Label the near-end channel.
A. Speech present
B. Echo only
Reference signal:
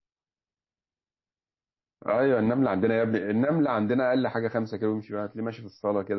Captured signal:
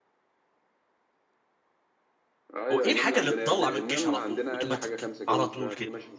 A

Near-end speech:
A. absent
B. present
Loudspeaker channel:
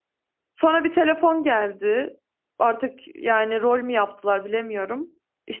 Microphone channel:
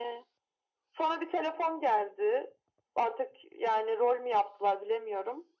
A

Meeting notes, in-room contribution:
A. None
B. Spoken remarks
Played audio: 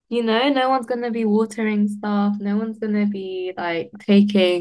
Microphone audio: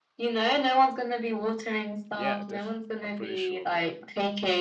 B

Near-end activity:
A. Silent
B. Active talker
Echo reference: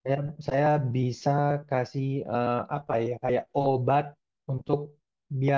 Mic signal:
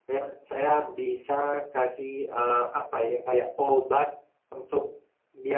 A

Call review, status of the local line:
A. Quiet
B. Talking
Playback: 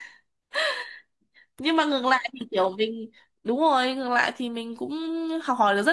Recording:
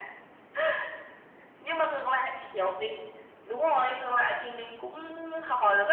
A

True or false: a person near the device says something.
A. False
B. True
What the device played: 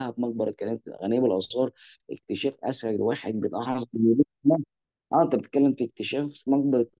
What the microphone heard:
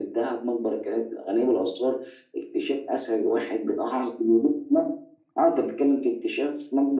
A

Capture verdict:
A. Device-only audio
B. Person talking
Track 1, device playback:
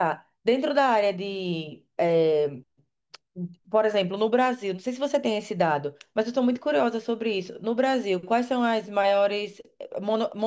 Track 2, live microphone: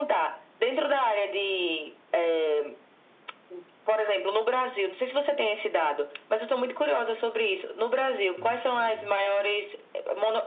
B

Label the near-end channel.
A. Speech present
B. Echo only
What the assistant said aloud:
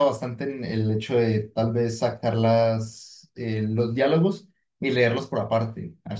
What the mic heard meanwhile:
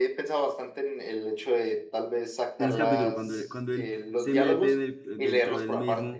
A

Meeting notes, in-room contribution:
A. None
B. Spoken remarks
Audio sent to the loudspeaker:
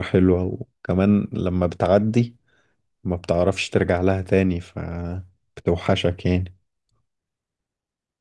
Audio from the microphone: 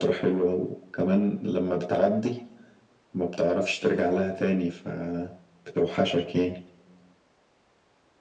A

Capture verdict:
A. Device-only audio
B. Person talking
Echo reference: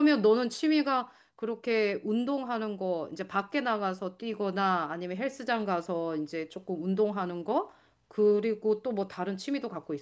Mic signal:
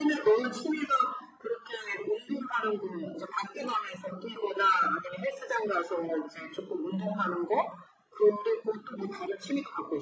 A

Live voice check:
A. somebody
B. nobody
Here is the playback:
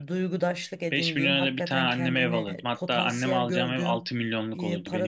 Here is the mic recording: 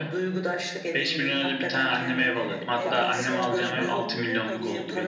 A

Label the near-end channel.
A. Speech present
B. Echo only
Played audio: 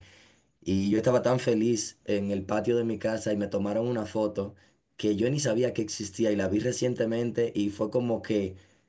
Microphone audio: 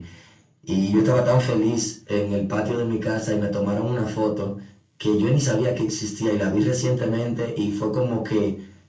B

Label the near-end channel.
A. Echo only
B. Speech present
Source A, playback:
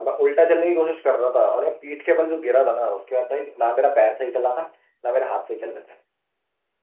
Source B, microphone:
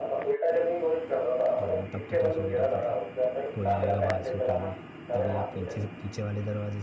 B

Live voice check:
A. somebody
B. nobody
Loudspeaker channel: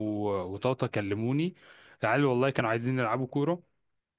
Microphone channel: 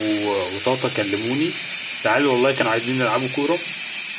B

